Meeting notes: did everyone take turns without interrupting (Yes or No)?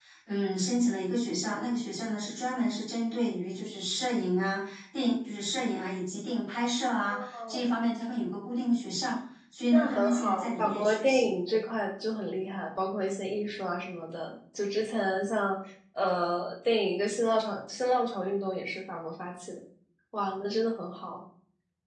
No